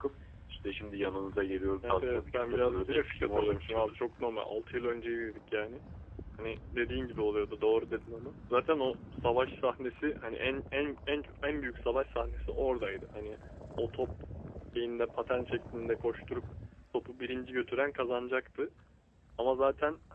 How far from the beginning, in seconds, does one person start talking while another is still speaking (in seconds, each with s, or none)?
1.8 s